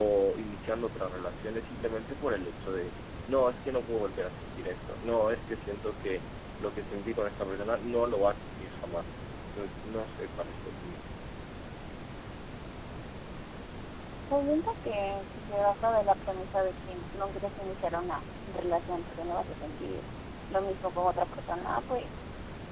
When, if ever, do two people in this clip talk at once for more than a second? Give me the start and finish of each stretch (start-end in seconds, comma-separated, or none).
none